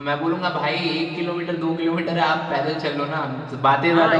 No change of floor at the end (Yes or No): No